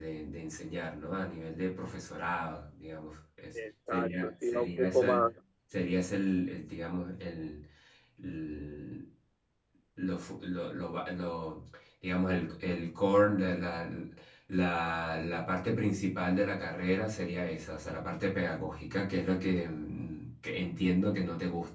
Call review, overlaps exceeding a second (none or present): present